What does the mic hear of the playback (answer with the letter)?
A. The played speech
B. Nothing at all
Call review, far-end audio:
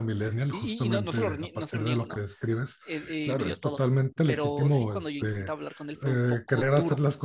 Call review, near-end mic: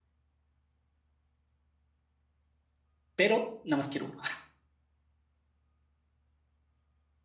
B